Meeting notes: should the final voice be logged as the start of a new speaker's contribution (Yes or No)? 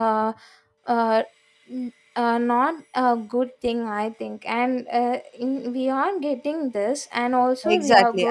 Yes